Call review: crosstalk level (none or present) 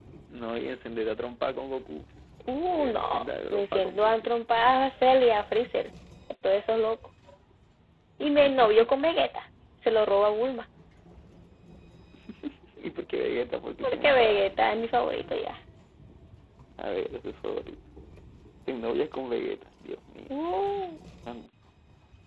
present